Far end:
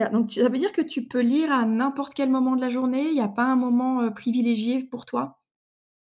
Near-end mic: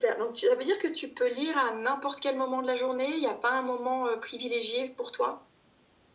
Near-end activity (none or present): none